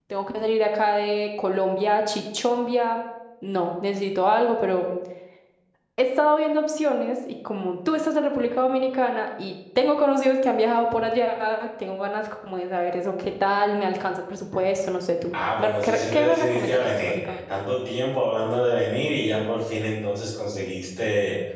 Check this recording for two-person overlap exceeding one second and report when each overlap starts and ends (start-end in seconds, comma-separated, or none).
15.3-17.4